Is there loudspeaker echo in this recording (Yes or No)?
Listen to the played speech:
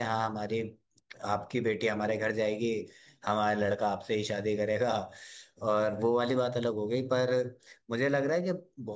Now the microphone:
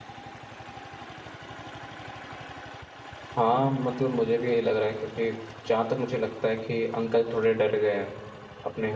No